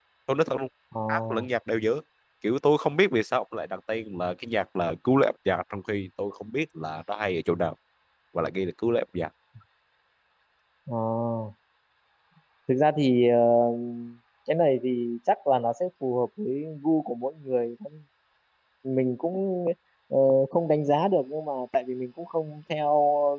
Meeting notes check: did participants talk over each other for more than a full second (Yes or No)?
No